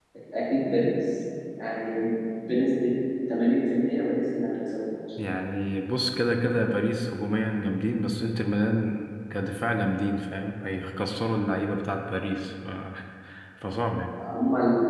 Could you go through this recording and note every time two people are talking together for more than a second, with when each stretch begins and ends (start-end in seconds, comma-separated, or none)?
none